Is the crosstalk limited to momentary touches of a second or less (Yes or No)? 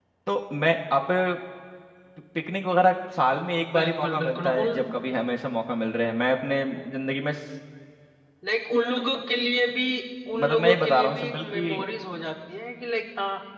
No